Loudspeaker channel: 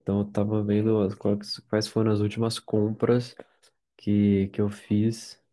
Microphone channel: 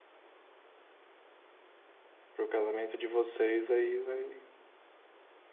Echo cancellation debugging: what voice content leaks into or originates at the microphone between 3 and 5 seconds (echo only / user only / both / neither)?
user only